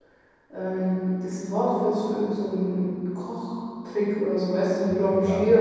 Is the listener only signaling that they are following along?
No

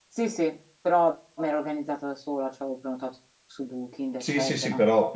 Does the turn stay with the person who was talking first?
No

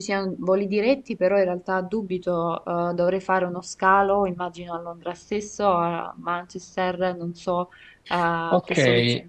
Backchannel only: No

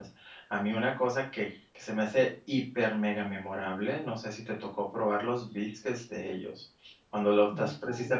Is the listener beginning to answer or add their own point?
No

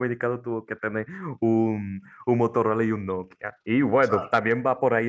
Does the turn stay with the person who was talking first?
Yes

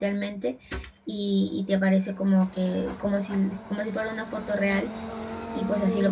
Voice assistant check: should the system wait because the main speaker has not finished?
Yes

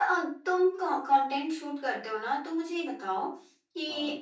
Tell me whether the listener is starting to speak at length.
No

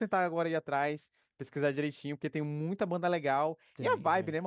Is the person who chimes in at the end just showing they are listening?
Yes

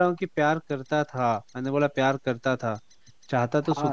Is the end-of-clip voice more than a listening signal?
No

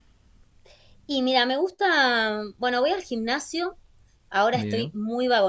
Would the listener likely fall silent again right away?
Yes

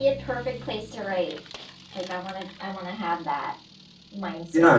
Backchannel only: No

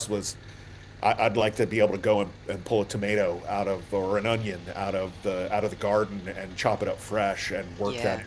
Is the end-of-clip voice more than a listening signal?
No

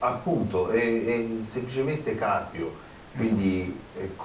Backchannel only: Yes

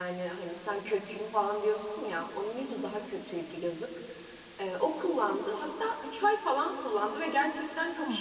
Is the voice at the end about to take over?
No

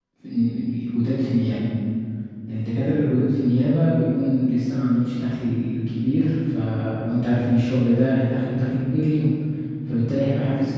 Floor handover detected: No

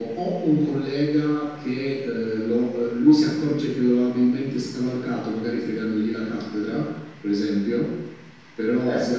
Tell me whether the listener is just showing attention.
Yes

